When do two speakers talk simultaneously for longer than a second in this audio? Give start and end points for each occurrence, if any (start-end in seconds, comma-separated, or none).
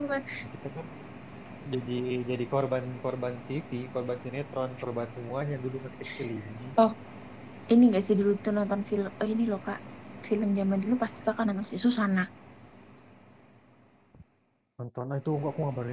none